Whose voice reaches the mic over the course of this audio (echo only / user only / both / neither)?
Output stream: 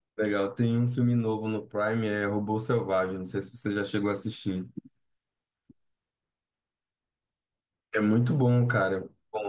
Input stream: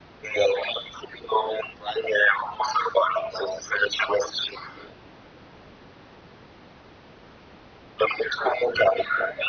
echo only